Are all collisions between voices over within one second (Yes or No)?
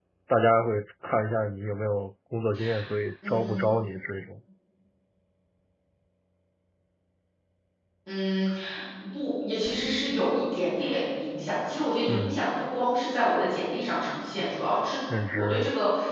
Yes